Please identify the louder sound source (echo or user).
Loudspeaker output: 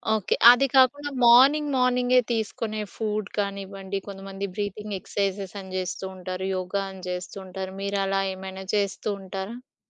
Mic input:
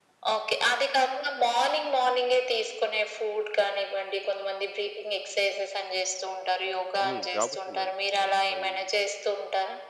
echo